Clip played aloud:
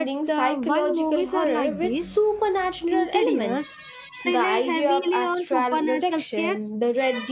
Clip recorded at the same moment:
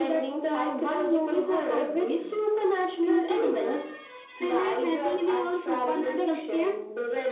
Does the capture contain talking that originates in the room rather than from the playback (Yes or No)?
No